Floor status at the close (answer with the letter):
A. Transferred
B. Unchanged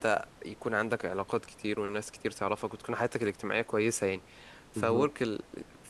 B